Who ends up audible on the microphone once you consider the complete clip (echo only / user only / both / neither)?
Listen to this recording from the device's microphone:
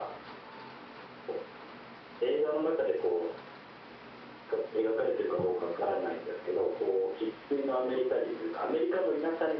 both